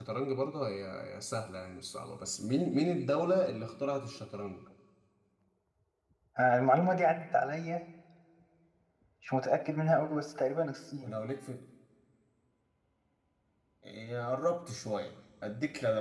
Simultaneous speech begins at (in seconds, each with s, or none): none